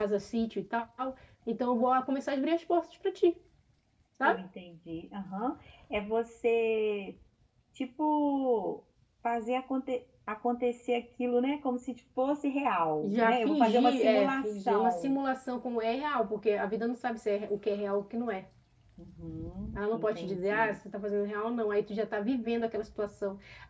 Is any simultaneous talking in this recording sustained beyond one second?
Yes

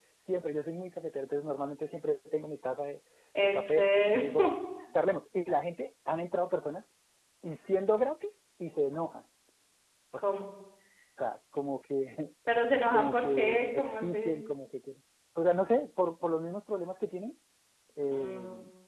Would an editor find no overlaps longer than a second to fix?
No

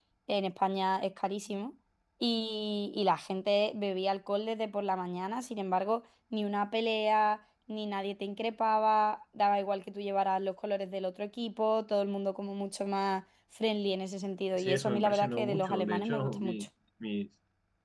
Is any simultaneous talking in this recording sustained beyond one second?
Yes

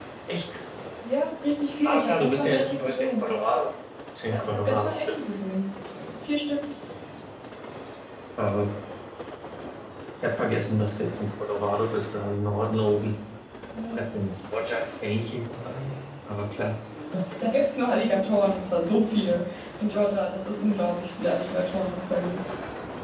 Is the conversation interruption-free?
No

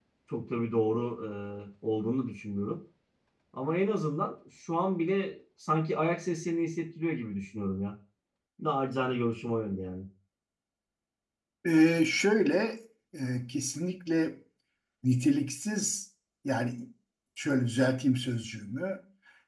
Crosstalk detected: No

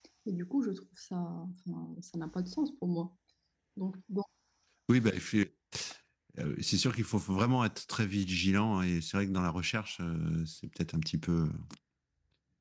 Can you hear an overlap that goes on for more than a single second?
No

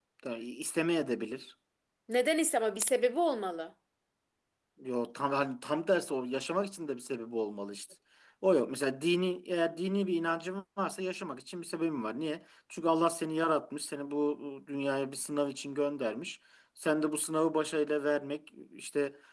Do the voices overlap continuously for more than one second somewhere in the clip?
No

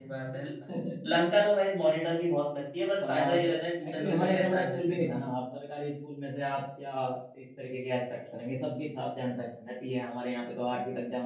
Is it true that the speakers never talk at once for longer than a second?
No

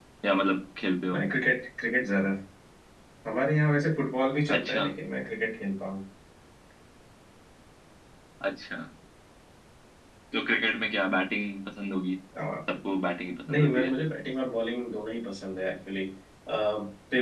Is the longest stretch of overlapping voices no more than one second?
Yes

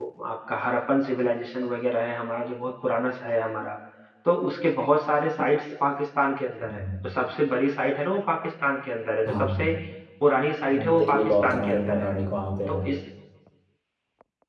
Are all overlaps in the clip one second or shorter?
No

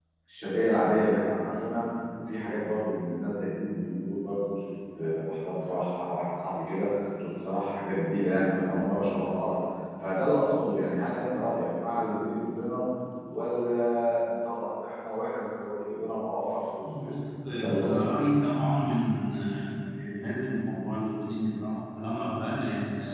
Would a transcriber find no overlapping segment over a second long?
Yes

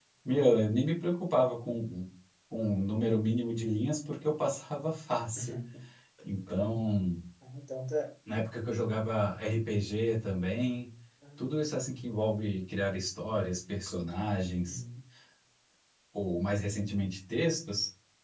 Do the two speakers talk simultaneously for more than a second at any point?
No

